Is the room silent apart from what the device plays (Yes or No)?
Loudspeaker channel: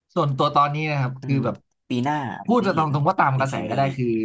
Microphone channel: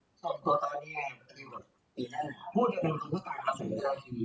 Yes